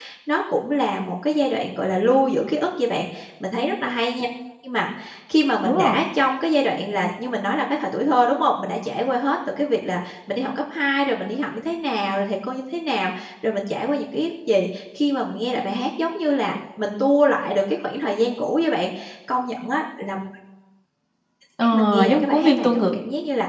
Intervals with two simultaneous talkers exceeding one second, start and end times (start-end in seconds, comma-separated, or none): 21.6-22.9